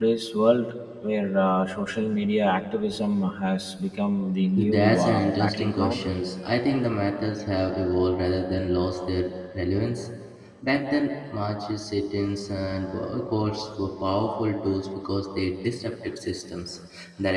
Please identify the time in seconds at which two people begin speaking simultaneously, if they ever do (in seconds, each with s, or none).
4.6 s